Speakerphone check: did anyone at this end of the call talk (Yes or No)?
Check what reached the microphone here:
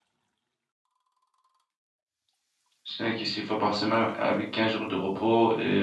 Yes